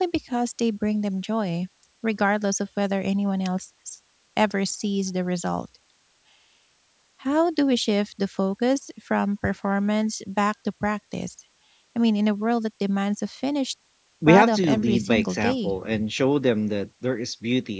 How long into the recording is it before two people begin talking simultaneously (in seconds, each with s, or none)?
14.3 s